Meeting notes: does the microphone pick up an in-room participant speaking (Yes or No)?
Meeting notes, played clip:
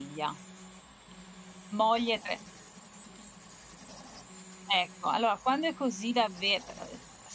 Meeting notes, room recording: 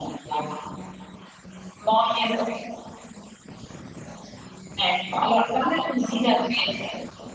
No